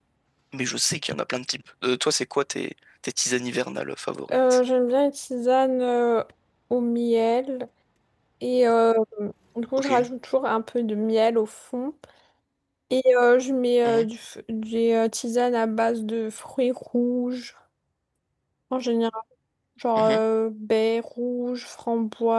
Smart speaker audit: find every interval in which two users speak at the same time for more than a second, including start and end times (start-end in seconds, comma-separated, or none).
none